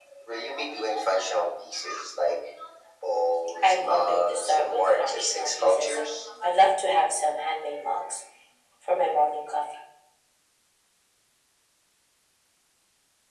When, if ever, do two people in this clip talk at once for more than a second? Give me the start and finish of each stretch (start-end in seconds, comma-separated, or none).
3.6-6.0